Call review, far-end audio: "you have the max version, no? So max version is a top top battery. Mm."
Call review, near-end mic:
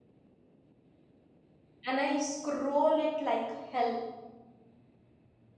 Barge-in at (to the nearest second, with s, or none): 2 s